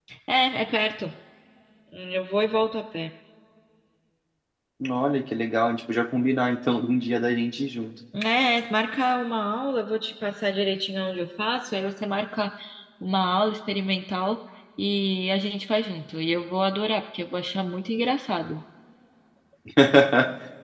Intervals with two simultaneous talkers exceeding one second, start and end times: none

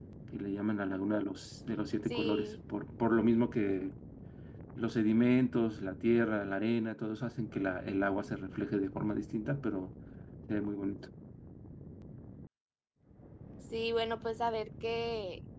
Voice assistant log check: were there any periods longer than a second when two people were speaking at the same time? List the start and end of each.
none

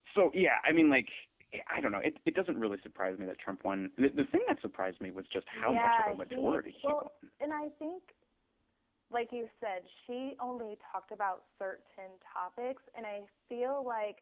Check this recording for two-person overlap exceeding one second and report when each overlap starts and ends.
5.5-7.1

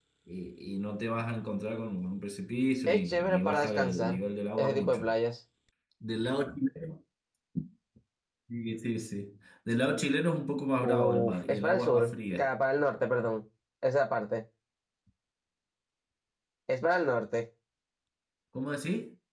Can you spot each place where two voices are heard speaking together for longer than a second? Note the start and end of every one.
2.9-4.2, 10.8-12.5

